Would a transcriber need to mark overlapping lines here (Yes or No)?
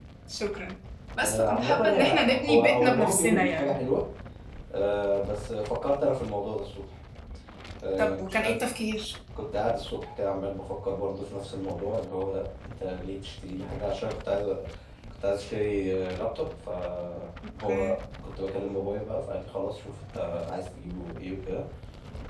Yes